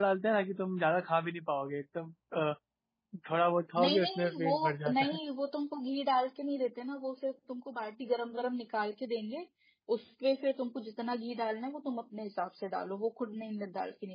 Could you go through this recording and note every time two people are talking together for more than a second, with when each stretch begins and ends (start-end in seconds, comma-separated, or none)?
3.8-5.2